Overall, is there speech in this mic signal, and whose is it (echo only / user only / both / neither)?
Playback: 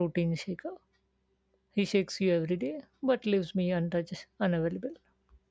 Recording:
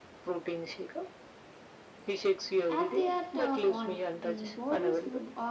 both